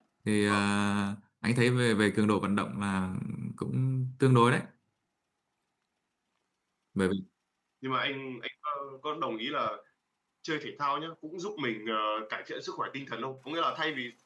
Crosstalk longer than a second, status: none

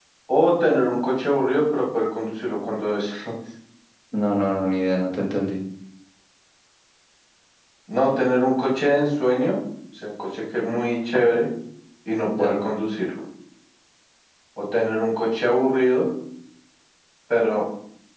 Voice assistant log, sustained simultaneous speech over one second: none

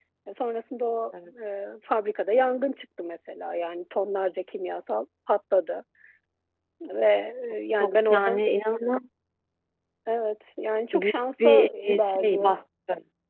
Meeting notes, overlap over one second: present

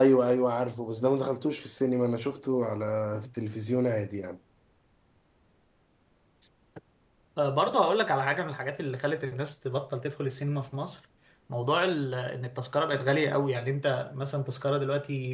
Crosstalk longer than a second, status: none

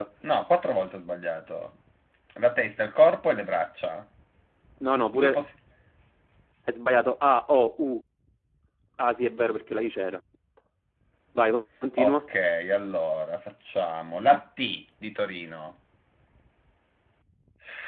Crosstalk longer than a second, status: none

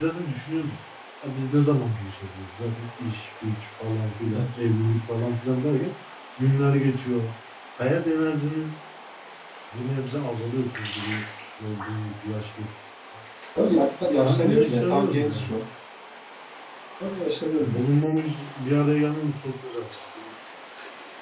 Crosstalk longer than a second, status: present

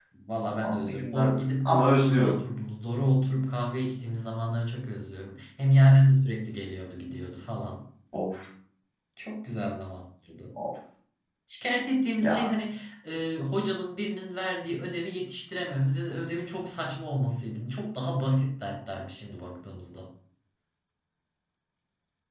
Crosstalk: present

